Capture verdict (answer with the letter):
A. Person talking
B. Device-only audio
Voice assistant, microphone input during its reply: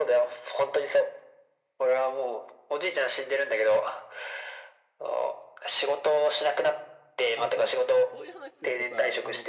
A